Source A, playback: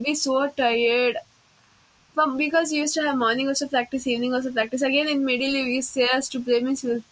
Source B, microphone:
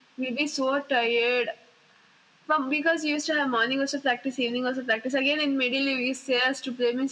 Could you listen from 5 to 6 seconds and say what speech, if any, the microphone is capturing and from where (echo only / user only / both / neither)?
echo only